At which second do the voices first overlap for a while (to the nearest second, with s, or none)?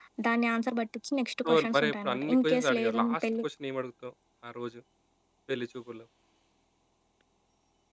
1 s